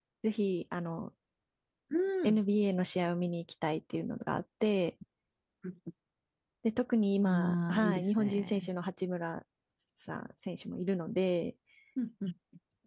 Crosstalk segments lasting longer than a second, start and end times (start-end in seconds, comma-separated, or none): 7.2-8.7